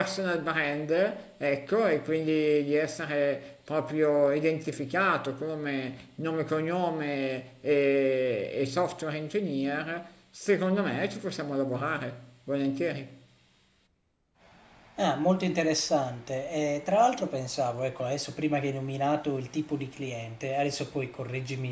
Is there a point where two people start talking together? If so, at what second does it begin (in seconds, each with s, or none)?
none